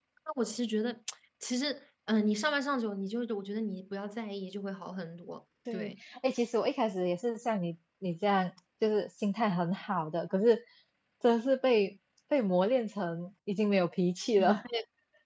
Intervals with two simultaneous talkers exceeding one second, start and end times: none

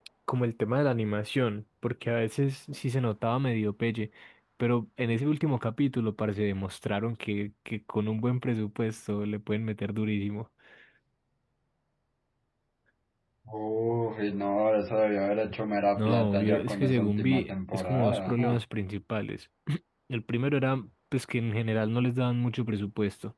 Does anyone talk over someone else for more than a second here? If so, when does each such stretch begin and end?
16.0-18.6

